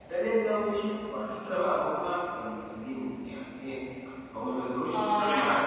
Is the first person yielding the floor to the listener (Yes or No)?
Yes